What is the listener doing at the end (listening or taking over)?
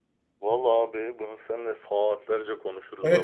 taking over